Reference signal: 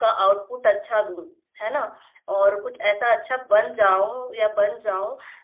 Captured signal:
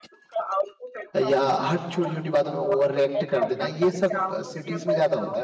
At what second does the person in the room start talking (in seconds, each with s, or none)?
1.2 s